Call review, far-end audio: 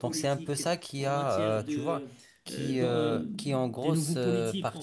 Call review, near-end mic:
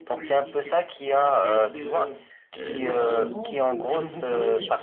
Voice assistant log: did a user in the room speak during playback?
Yes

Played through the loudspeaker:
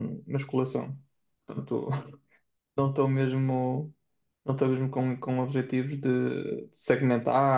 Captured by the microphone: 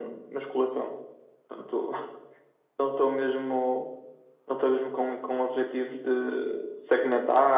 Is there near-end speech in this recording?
No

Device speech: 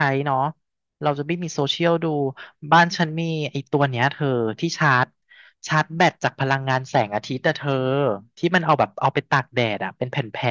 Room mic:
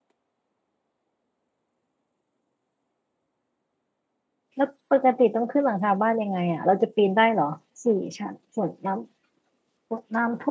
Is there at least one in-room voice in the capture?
Yes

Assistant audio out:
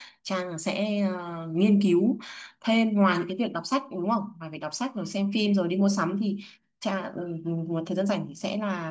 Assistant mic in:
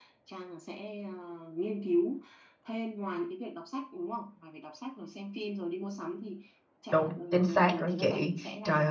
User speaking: Yes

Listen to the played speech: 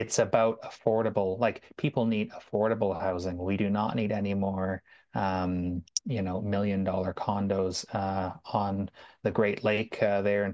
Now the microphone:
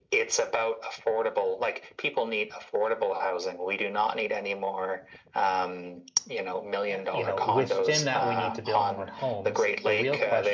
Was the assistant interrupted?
Yes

